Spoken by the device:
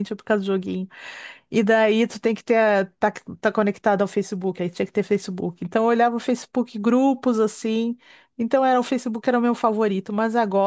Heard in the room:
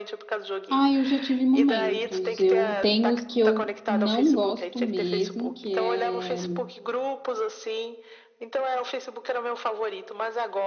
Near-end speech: present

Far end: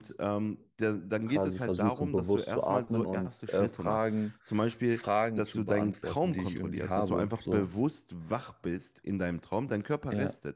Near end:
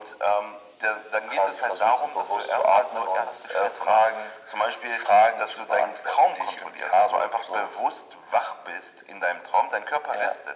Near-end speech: none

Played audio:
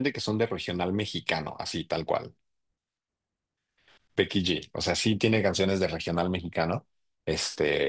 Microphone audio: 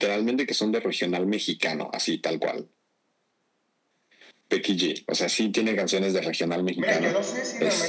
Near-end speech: present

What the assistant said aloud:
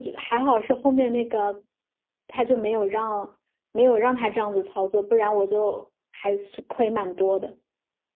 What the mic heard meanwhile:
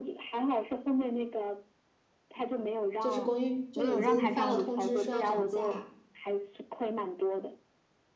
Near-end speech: present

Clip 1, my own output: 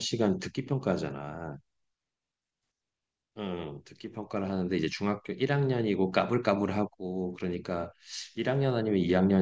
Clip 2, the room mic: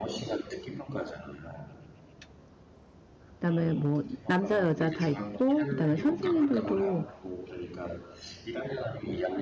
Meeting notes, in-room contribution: present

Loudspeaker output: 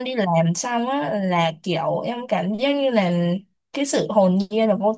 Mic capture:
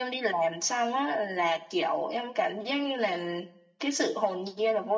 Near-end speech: none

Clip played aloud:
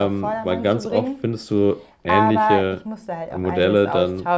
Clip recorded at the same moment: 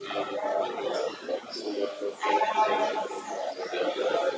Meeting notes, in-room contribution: none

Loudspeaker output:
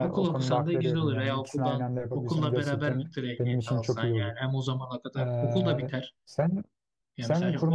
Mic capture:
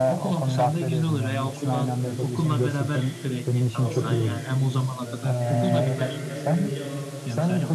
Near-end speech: present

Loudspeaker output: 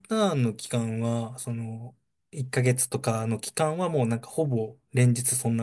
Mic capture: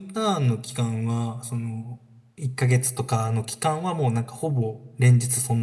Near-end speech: none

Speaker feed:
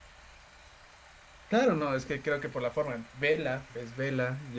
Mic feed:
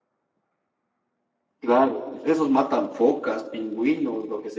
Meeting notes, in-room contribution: present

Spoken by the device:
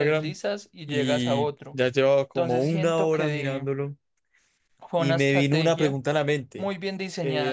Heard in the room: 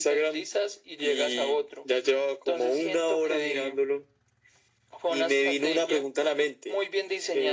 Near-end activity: none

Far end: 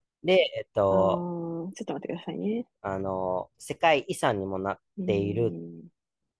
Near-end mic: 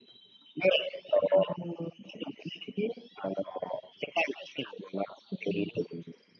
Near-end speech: none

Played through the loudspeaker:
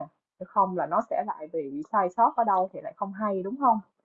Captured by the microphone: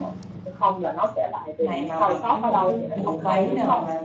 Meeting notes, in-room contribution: present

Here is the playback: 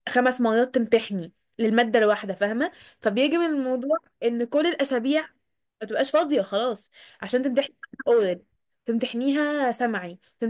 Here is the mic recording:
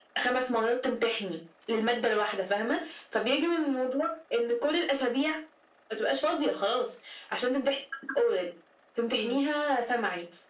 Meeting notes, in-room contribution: present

